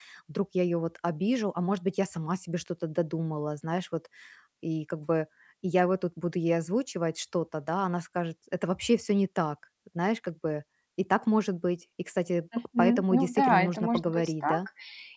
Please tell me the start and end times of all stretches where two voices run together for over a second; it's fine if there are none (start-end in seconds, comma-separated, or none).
12.8-14.7